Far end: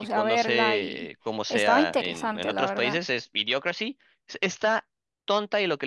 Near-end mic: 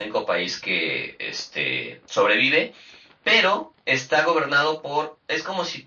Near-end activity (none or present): present